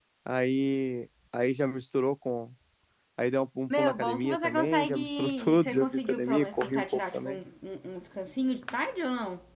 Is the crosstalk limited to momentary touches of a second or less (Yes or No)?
No